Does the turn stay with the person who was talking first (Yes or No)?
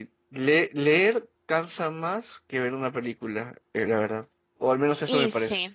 No